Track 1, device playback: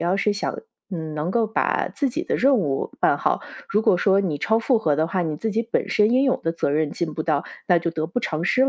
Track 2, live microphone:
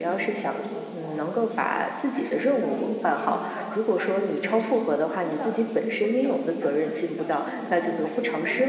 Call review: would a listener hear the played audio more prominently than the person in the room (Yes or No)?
Yes